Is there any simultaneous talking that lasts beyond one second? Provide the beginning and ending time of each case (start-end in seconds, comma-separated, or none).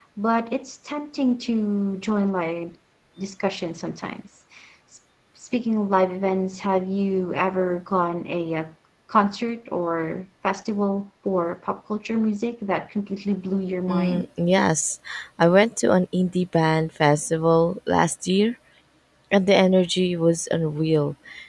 none